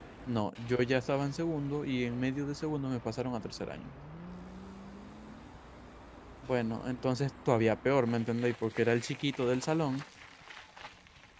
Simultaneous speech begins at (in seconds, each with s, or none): none